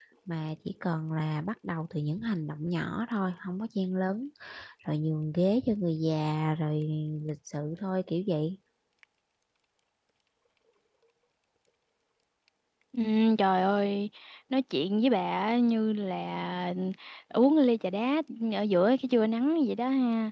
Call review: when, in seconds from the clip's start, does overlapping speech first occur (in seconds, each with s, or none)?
none